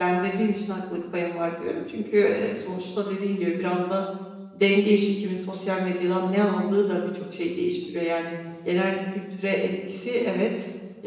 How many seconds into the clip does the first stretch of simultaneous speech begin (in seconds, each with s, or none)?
none